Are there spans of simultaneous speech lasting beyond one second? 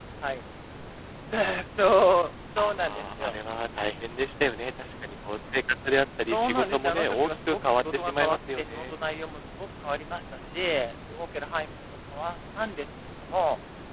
Yes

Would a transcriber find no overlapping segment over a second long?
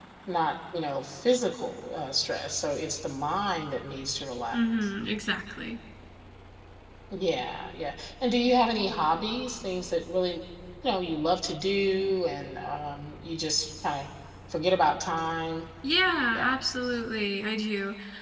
Yes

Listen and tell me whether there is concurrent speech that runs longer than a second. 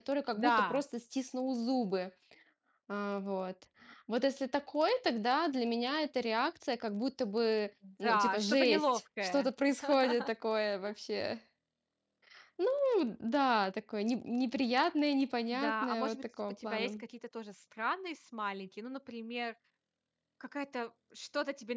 Yes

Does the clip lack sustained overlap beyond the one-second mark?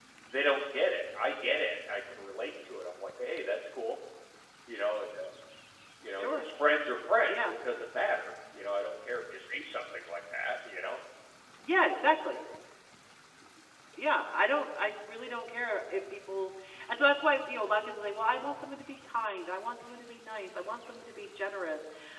Yes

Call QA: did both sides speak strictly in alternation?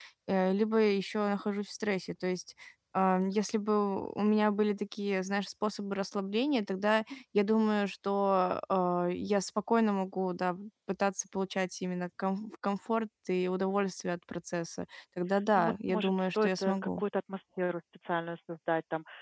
No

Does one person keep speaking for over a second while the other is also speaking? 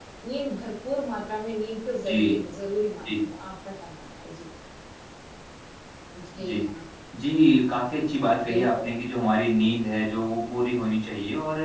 No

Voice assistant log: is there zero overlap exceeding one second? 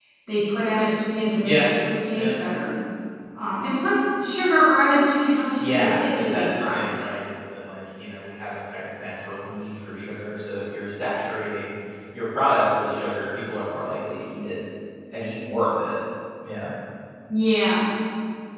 No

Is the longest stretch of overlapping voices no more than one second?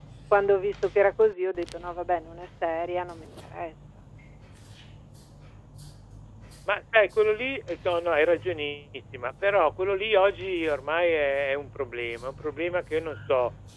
Yes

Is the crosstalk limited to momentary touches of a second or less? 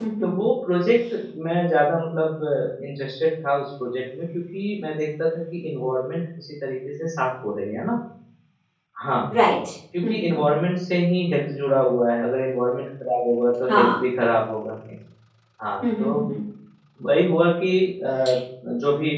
Yes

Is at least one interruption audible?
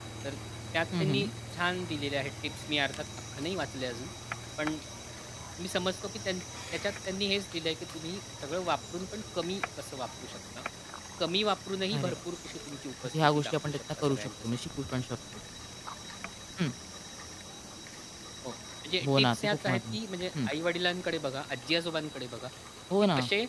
Yes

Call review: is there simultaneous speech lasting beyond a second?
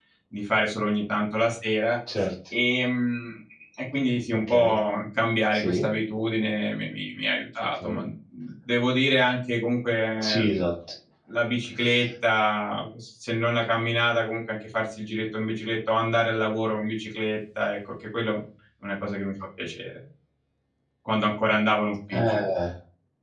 No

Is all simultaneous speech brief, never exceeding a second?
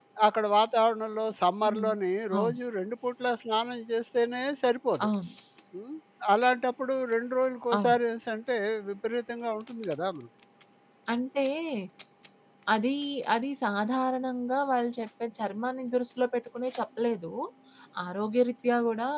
Yes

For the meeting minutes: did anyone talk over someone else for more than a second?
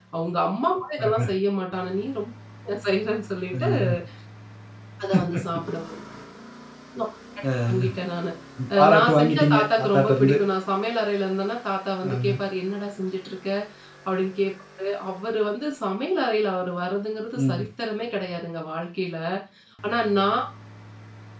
Yes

